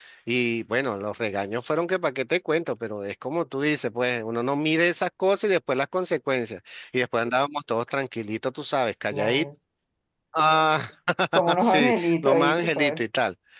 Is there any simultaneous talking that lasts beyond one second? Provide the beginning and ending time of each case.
11.6-13.0

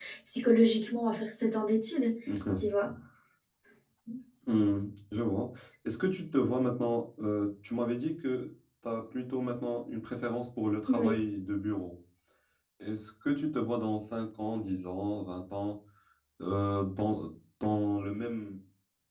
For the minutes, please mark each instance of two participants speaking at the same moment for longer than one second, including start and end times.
none

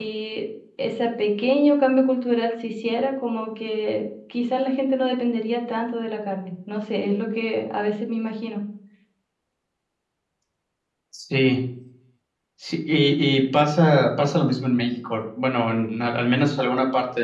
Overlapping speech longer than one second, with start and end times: none

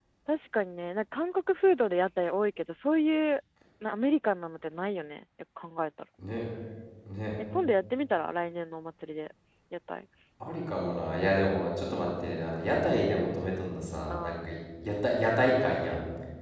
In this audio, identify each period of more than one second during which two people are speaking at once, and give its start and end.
none

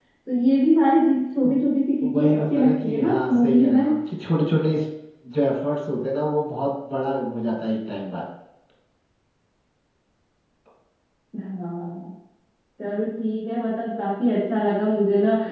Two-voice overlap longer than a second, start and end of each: 2.0-3.8

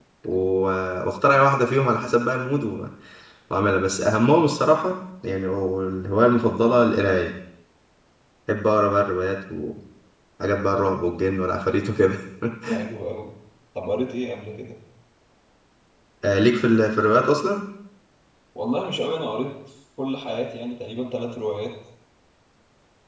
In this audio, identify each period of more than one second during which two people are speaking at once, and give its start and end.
none

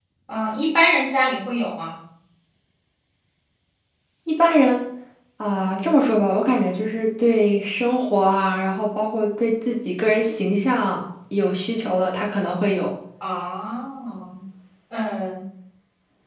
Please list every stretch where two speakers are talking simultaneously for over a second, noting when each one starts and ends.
none

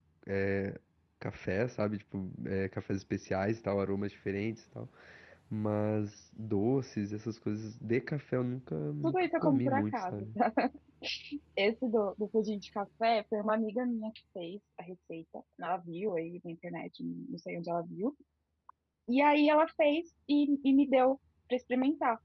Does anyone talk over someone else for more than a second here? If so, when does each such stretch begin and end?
9.0-10.3

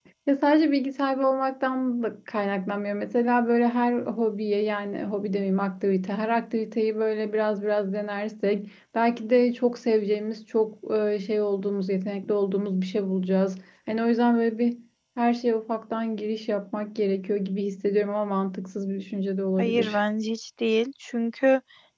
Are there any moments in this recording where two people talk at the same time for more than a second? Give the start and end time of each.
none

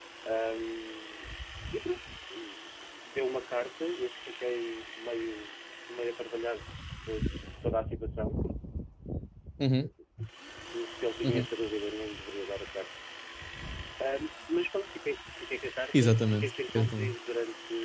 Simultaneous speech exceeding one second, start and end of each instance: 15.9-17.1

